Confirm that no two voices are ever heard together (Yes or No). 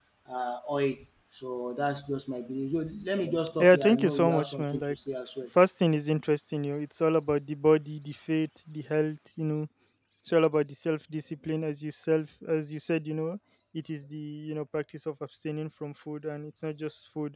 No